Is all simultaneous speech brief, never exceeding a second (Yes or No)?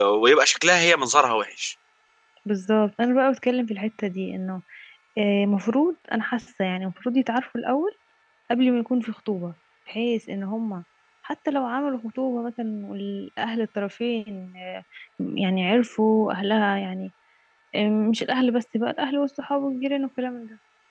Yes